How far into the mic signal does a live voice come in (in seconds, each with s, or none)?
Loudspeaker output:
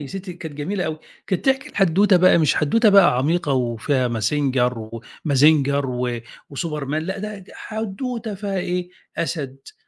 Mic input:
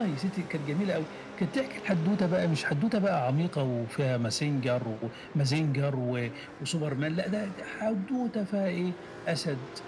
none